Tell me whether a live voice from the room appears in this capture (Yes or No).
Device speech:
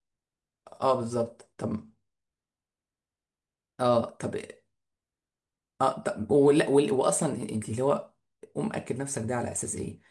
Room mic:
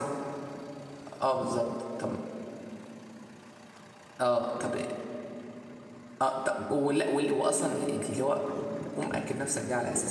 No